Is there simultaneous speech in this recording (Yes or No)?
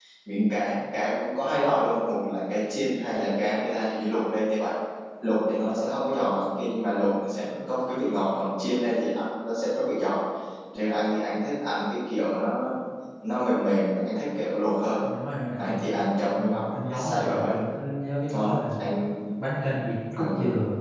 Yes